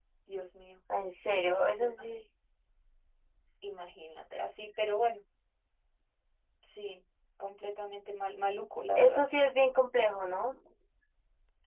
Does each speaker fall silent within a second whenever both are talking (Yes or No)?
Yes